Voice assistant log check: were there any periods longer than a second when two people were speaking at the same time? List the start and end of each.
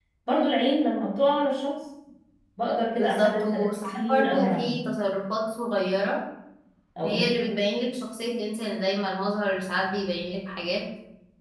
3.0-4.7

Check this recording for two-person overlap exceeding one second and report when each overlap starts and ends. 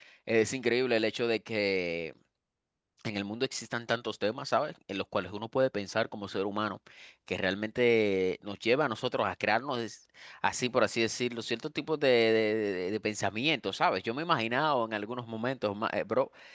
none

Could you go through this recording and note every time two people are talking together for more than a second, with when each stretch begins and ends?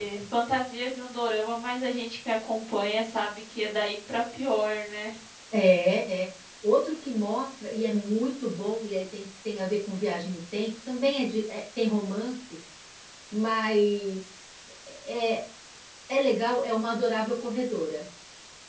none

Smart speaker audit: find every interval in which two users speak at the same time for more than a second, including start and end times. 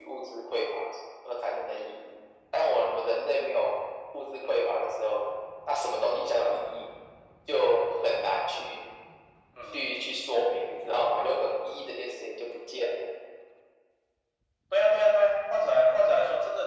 none

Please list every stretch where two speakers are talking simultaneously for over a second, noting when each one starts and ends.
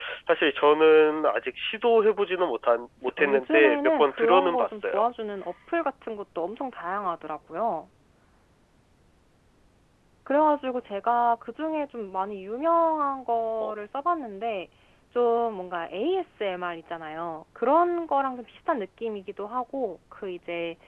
3.0-4.8

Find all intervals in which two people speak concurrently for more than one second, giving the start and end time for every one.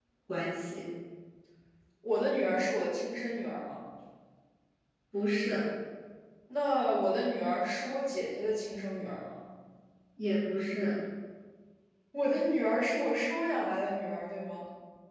none

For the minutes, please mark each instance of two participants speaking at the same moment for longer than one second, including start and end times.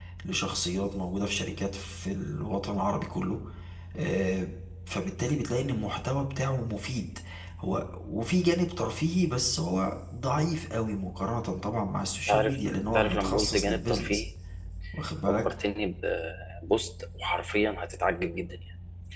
12.9-14.2

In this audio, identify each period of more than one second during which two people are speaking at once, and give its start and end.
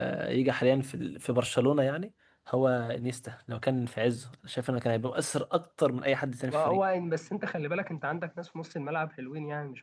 none

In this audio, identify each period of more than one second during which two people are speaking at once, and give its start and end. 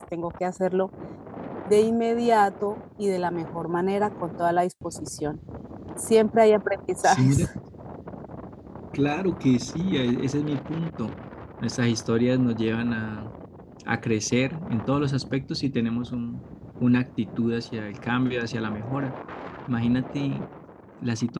none

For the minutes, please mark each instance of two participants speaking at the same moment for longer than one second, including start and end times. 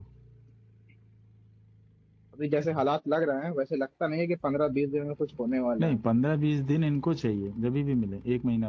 none

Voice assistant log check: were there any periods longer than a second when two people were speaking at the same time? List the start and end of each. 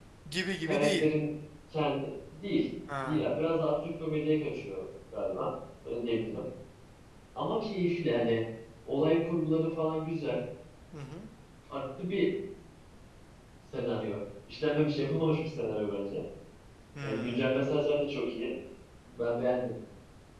none

